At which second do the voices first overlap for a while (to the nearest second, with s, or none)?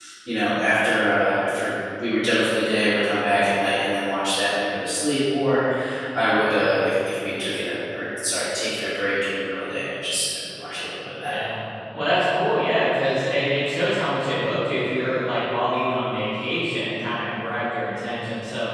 none